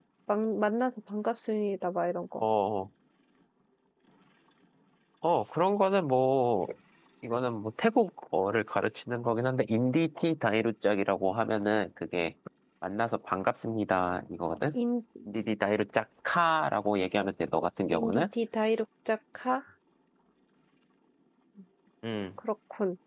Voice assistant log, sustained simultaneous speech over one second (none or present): none